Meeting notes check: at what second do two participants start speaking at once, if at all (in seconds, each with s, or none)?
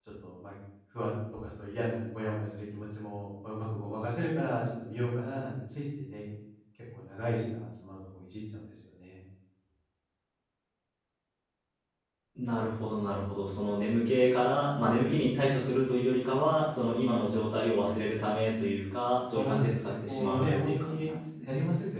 19.3 s